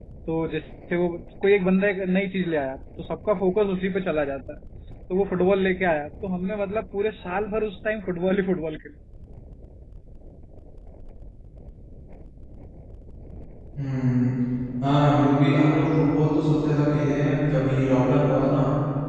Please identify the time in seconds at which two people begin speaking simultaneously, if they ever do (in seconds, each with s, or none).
none